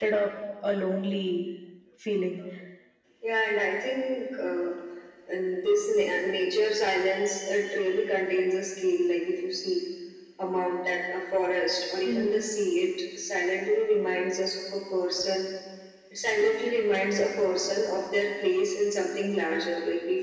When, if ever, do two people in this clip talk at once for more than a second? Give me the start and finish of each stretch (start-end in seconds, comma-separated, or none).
none